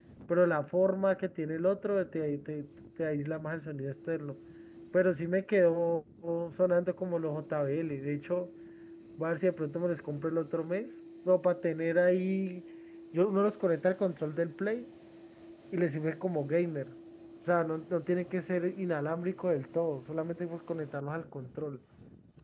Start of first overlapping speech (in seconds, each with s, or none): none